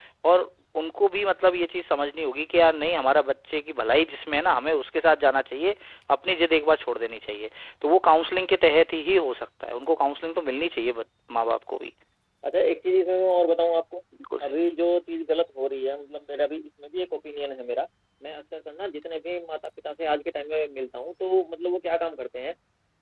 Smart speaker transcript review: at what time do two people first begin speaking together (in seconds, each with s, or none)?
none